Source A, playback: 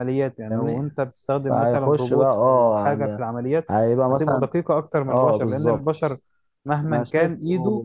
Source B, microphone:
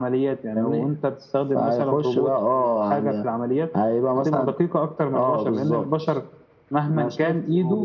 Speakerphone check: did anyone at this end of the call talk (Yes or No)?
No